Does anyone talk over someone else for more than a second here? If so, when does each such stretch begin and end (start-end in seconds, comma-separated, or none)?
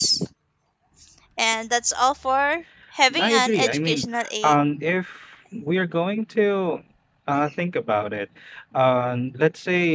3.2-4.5